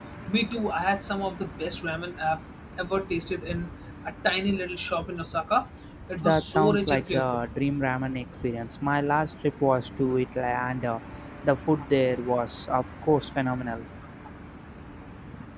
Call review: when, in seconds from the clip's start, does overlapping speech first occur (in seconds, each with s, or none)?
6.1 s